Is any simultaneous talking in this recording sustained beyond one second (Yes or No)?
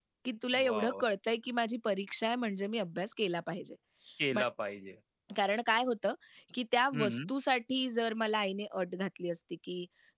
No